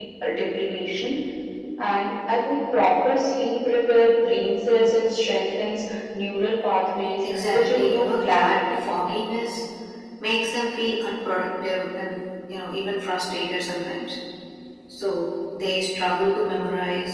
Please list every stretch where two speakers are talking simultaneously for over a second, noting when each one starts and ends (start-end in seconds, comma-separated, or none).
7.5-8.8